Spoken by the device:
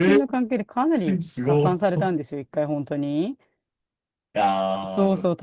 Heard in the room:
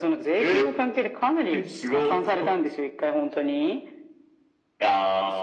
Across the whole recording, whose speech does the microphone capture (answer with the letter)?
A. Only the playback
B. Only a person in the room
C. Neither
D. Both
A